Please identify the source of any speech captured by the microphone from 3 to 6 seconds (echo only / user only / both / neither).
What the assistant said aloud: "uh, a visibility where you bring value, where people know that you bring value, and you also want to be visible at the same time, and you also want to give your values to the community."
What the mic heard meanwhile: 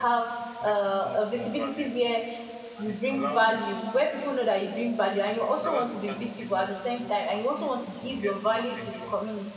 both